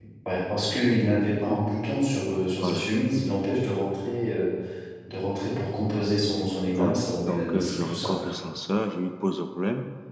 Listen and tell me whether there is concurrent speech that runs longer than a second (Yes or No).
Yes